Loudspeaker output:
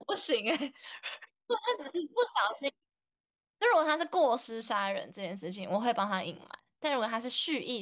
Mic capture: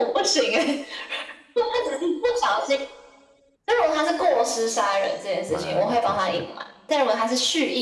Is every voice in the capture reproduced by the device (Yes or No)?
No